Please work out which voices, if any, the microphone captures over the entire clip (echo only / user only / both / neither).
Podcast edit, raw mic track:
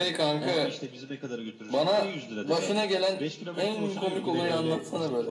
both